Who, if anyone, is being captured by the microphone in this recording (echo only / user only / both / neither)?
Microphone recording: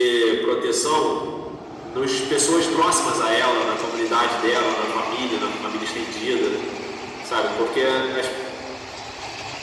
echo only